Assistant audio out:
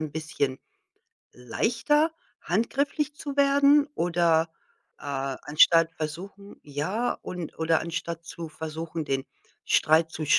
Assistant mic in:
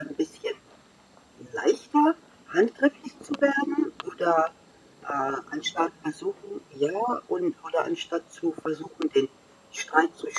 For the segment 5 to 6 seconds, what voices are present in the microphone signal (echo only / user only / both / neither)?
echo only